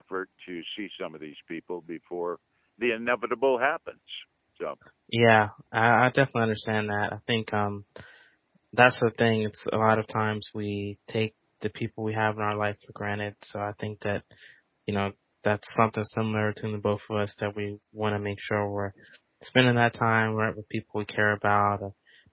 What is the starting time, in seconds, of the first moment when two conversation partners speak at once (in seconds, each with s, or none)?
none